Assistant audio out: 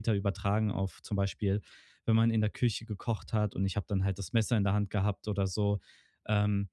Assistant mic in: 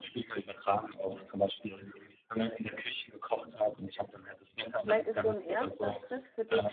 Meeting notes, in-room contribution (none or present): present